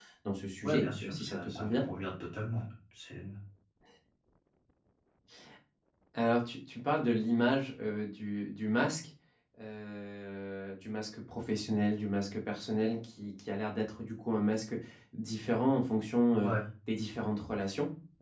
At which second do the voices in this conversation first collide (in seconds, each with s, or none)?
0.6 s